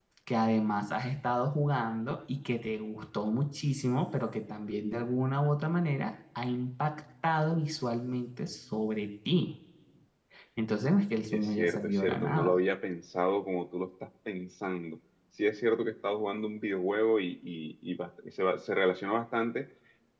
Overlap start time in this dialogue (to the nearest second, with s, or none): 11 s